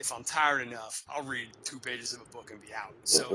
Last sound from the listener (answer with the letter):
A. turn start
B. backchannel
B